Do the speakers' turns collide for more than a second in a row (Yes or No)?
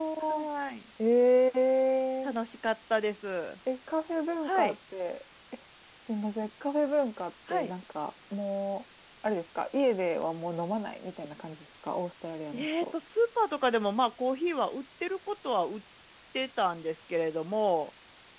No